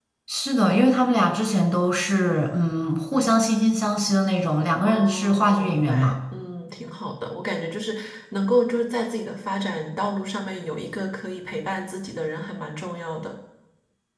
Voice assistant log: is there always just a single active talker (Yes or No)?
No